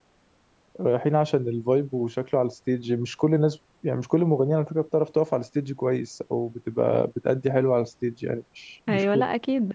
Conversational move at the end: taking over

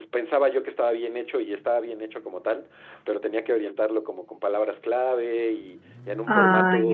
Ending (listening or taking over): listening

